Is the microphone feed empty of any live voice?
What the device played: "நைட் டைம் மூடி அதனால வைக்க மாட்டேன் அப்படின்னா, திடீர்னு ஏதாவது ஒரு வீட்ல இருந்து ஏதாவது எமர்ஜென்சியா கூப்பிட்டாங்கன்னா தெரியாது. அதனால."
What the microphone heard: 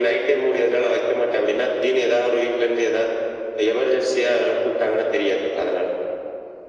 Yes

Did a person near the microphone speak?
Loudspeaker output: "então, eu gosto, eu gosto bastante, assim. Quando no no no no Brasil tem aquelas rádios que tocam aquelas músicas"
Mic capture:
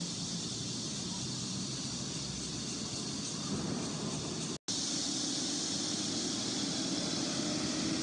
No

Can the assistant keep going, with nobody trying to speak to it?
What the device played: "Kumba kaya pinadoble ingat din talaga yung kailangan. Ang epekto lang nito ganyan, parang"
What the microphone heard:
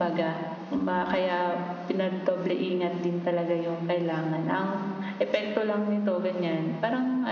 No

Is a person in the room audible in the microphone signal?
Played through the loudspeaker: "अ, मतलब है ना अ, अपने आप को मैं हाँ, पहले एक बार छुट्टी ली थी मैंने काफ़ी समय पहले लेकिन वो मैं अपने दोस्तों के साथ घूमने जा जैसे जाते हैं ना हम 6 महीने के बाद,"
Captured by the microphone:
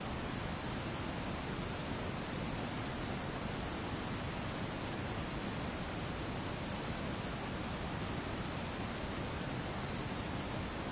No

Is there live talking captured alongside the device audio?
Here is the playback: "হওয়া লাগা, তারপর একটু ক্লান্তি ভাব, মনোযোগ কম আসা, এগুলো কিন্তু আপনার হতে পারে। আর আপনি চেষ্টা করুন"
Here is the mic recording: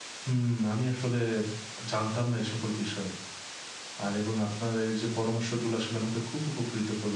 Yes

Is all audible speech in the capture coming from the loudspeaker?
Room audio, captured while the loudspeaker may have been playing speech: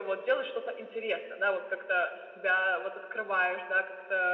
Yes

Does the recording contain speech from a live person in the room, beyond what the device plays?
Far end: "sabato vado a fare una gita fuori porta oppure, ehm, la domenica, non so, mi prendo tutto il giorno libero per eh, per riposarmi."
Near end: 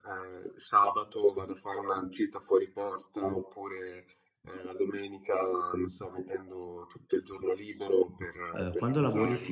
Yes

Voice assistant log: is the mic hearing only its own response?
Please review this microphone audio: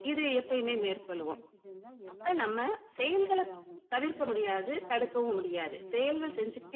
No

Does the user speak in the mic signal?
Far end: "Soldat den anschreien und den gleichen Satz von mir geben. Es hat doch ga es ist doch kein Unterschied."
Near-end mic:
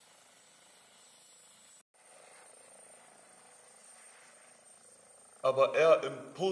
Yes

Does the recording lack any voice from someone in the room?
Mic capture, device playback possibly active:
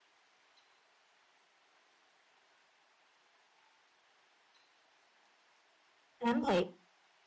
No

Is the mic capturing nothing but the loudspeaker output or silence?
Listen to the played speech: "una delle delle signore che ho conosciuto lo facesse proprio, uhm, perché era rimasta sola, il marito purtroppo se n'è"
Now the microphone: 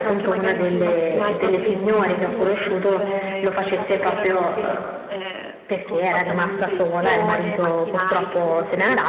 No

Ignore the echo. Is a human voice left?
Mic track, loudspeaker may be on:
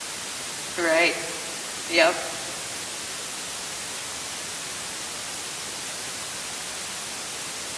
Yes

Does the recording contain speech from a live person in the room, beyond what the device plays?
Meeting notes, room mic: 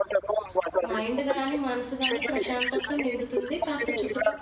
Yes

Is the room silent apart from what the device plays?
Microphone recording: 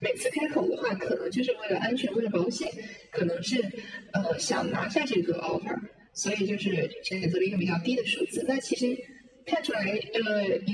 Yes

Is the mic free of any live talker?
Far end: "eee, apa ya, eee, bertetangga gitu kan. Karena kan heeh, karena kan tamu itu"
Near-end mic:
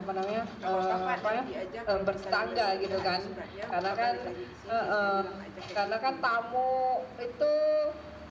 No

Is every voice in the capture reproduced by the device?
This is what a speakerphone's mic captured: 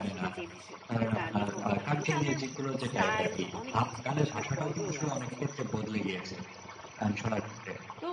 No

